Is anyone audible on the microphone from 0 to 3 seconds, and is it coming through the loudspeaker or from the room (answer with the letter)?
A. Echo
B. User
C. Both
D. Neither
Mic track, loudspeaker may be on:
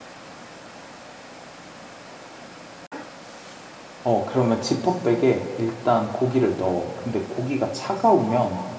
D